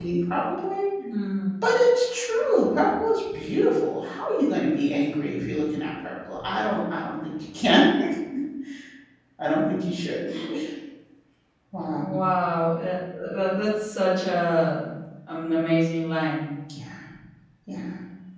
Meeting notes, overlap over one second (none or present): none